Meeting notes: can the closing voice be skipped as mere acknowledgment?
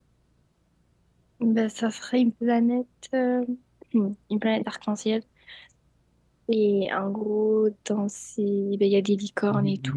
No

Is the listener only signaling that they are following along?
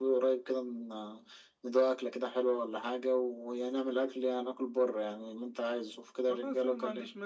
No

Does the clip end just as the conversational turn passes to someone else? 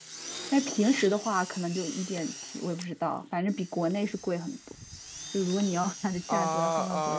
Yes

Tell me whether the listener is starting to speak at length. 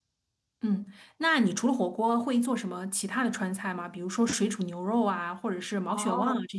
Yes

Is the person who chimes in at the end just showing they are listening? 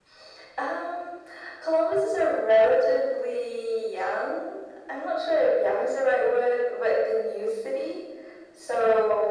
Yes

